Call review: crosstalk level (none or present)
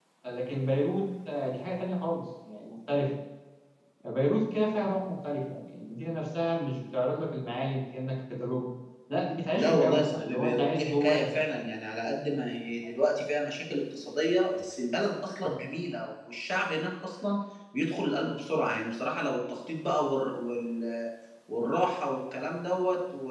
present